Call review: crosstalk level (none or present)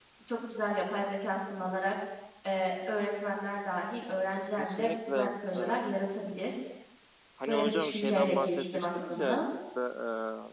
present